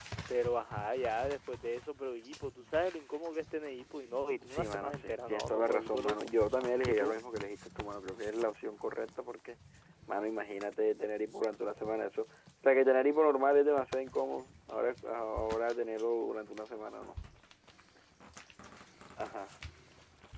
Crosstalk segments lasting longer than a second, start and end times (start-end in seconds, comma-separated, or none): 4.5-6.3